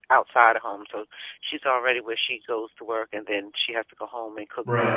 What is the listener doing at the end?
listening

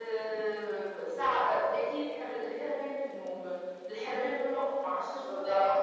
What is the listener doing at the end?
listening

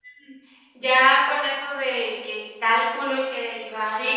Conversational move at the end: taking over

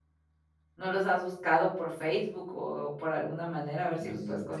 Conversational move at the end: taking over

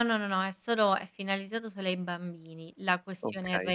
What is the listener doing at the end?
listening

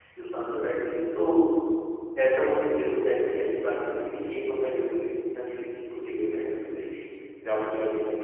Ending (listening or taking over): listening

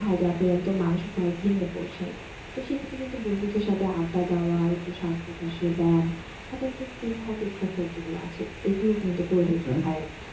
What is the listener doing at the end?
listening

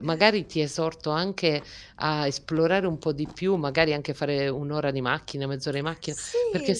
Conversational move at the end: listening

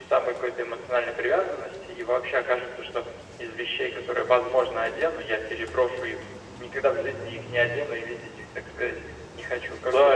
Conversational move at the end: taking over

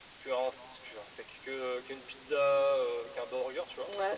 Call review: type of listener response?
listening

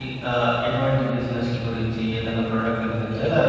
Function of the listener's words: taking over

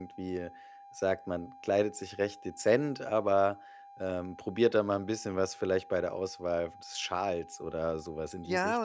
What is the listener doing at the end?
taking over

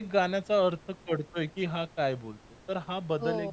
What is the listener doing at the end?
taking over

